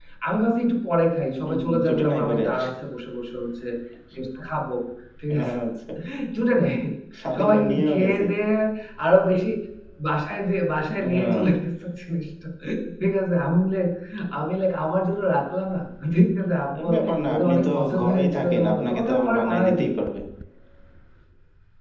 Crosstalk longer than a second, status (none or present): present